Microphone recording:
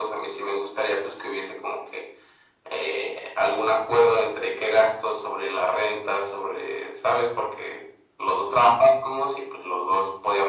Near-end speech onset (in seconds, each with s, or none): none